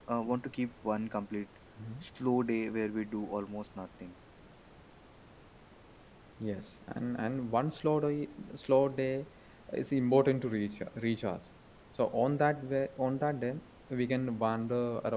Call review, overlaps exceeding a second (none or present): none